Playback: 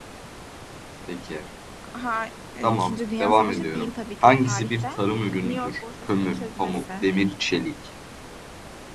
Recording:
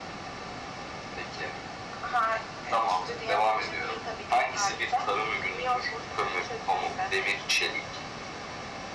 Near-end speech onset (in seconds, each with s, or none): none